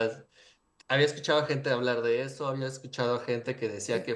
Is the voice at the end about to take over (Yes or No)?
No